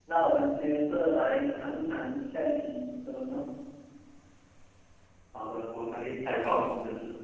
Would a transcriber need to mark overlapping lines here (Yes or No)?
No